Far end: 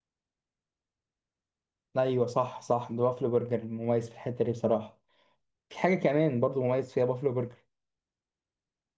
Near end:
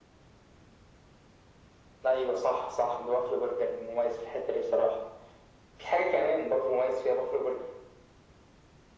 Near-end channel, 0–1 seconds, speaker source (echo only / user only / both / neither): neither